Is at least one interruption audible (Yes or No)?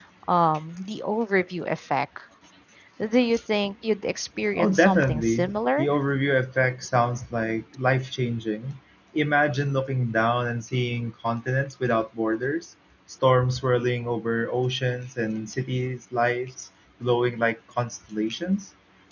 Yes